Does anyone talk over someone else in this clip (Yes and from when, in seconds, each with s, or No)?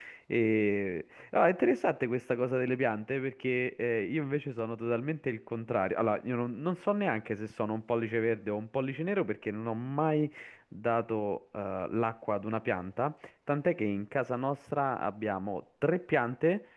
No